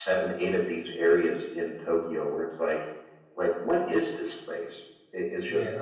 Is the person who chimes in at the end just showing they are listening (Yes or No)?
Yes